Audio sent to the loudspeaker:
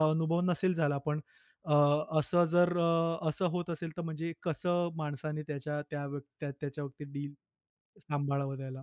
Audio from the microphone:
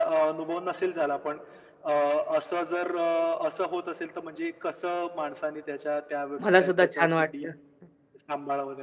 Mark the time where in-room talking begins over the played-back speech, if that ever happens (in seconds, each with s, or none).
6.4 s